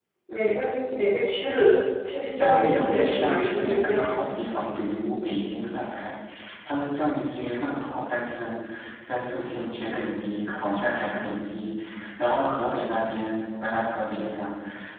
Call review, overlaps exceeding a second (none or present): present